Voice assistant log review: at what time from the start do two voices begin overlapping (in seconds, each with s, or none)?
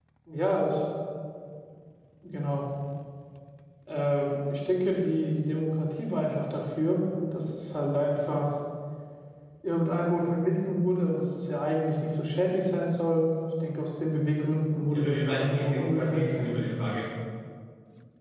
14.9 s